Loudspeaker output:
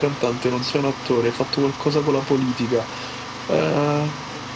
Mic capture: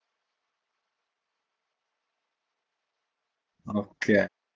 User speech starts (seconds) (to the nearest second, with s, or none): 4 s